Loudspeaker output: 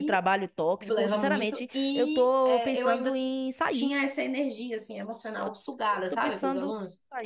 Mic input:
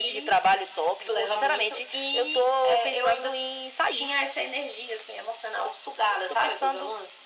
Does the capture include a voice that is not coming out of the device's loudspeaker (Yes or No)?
No